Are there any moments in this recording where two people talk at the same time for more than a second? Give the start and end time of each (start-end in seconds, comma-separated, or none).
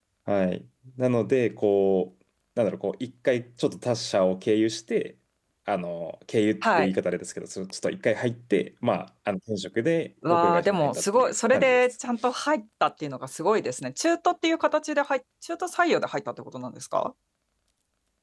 10.3-11.9